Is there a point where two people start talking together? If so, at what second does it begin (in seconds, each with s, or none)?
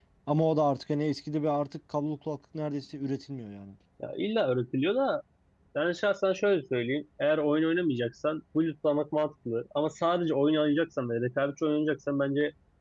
none